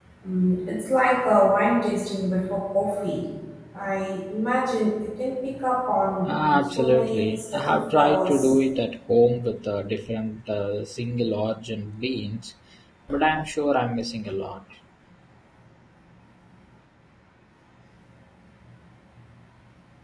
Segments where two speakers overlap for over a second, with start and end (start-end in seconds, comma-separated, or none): 6.2-8.5